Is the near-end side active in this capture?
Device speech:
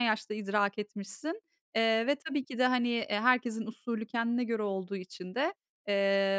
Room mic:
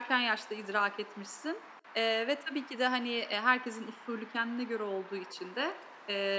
No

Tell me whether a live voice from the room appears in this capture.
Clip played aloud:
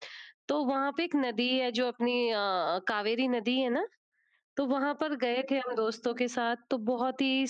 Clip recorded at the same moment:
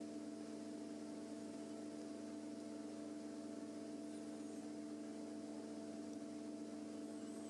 No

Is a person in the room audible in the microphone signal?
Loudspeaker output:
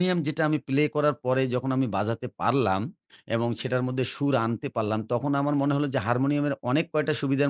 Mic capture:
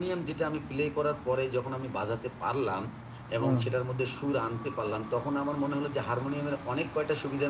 Yes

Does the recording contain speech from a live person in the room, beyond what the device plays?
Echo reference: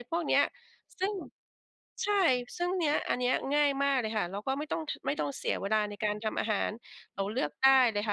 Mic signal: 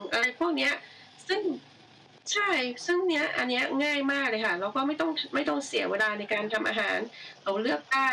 No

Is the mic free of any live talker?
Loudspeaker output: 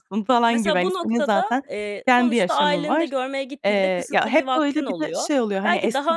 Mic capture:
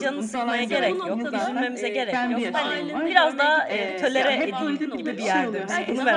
No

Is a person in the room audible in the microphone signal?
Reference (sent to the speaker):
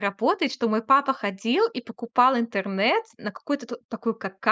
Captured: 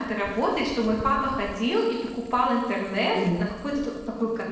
Yes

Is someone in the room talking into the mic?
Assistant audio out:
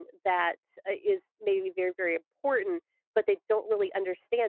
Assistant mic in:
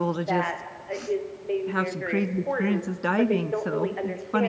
Yes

